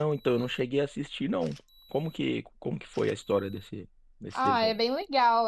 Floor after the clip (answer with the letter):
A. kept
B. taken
B